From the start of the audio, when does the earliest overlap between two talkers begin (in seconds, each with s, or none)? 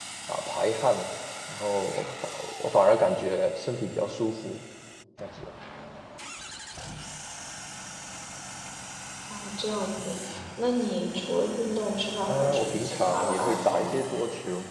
12.3 s